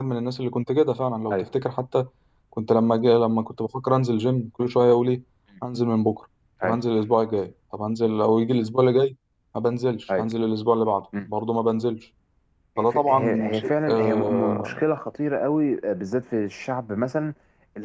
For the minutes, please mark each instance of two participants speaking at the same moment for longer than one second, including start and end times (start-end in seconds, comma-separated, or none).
12.8-14.8